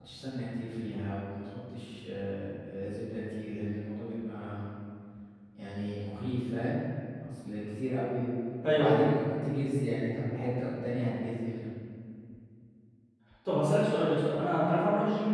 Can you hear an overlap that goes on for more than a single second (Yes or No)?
No